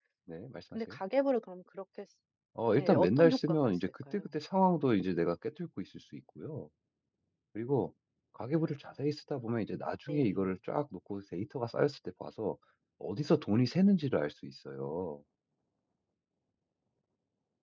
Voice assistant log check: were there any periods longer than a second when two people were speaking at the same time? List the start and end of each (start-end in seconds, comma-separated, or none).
2.8-4.2